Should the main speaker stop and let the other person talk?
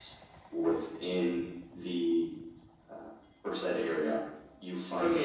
Yes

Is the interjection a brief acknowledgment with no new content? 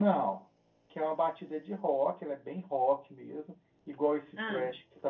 Yes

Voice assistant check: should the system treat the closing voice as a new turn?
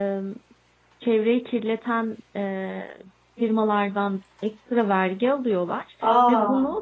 No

